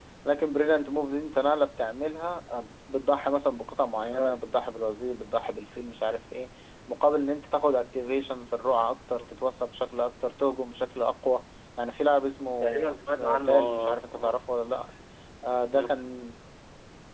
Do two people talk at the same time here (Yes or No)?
Yes